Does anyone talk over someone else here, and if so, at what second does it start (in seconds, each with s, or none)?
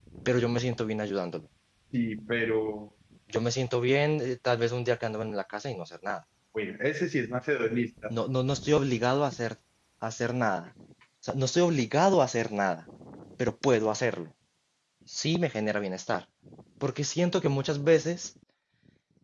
none